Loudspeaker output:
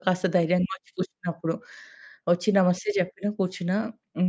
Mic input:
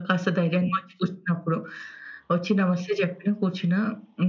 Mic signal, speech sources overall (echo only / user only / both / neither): echo only